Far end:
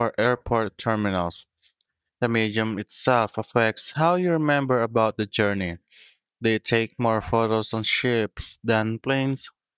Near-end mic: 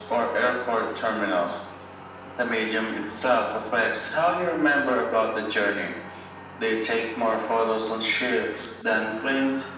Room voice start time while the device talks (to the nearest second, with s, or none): none